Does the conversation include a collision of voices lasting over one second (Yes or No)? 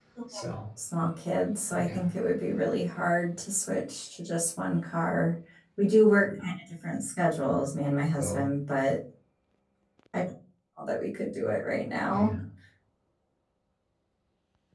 No